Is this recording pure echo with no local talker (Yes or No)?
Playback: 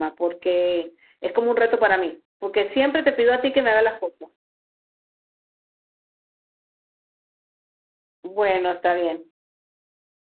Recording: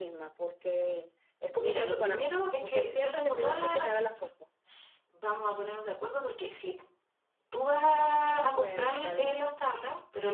No